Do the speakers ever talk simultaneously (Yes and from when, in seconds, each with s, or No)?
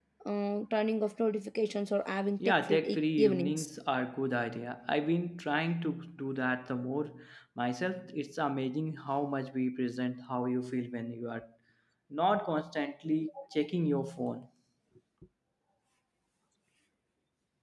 Yes, from 2.4 s